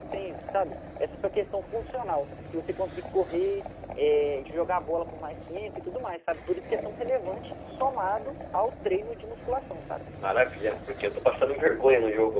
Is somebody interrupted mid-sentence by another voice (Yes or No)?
No